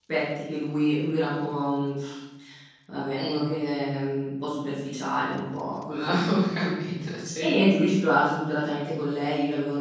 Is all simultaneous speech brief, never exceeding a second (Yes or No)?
Yes